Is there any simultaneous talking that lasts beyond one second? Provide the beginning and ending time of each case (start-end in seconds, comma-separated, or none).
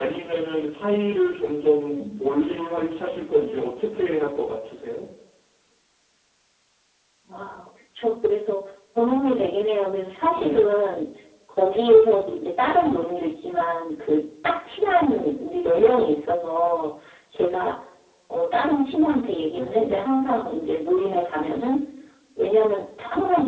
none